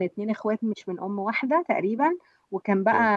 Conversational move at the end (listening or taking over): listening